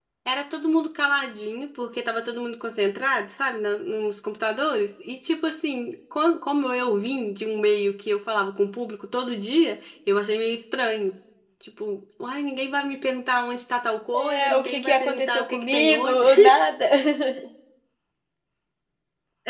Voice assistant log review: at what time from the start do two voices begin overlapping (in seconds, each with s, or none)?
14.1 s